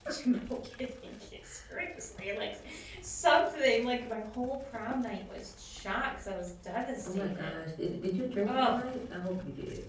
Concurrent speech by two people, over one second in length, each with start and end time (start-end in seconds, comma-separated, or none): none